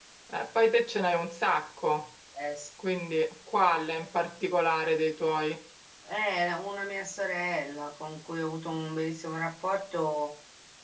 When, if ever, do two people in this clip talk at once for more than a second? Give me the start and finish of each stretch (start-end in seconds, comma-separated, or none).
none